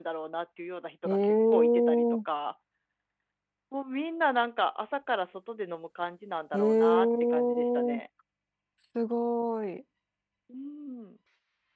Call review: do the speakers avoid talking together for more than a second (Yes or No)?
No